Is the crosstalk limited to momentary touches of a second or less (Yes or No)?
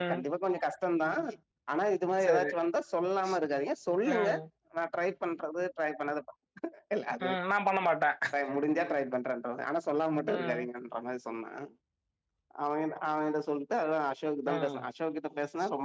Yes